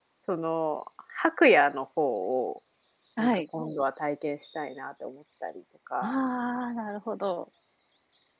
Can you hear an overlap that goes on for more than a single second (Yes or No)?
No